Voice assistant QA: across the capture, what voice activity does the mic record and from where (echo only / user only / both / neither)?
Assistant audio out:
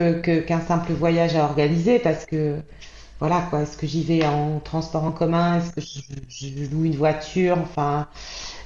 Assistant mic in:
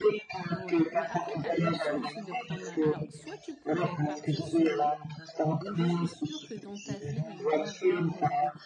both